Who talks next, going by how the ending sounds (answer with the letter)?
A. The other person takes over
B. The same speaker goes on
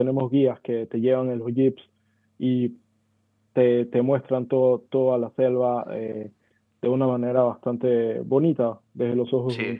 A